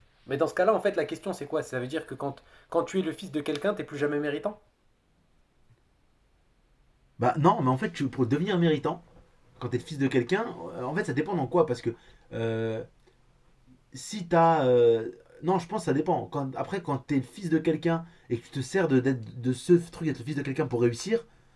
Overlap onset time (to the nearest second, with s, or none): none